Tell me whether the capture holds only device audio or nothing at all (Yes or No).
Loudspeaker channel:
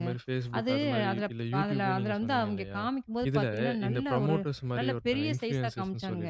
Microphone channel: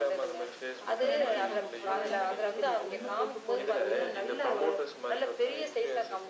No